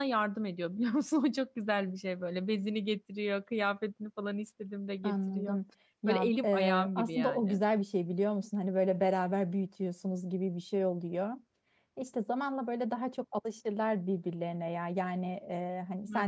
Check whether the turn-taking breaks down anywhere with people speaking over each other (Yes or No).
Yes